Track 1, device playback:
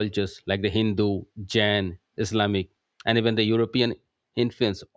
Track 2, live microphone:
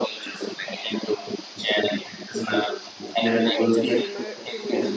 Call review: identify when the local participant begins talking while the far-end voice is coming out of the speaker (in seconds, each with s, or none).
3.4 s